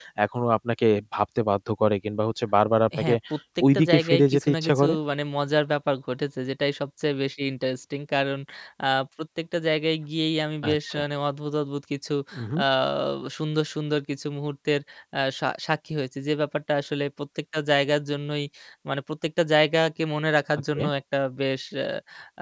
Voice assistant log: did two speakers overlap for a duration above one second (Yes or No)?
Yes